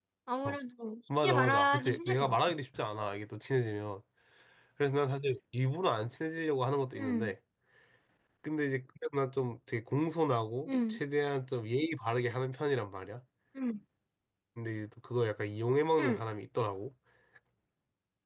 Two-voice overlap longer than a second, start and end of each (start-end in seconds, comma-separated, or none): 1.2-2.5